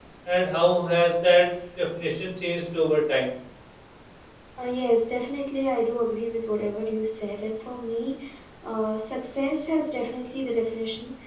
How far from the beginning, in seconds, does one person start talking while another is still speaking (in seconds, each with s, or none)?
none